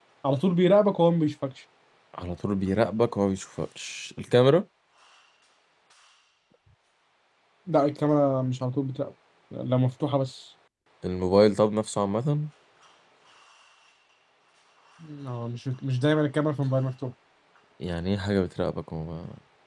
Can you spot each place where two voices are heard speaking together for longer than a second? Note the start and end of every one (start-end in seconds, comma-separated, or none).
none